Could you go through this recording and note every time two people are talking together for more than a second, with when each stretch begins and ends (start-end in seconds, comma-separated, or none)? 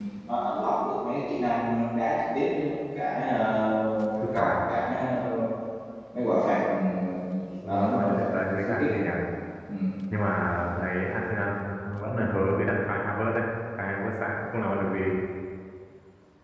7.7-9.0